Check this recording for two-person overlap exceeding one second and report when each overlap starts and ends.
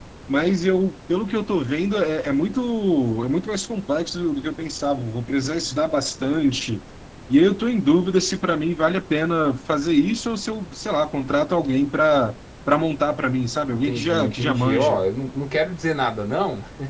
13.8-15.0

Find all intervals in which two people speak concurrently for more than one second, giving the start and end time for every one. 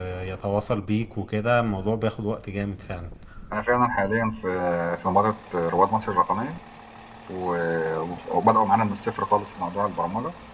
none

